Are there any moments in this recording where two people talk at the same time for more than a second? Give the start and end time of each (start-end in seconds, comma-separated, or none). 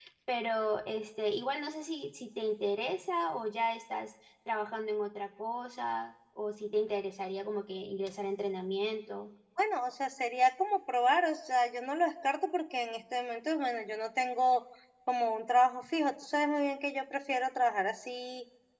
none